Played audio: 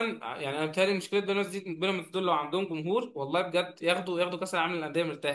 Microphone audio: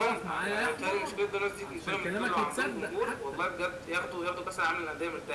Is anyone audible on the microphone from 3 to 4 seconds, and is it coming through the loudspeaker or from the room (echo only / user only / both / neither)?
both